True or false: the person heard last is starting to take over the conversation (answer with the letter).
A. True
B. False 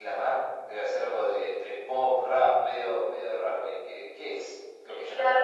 A